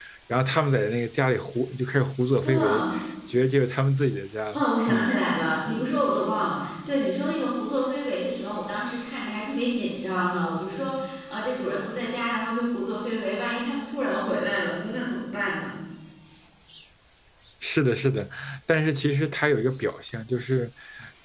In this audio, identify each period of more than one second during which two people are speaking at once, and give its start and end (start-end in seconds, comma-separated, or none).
none